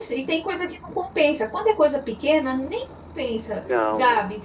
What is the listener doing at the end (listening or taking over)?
listening